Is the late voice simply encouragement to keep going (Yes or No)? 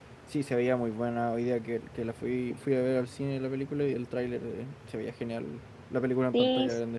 No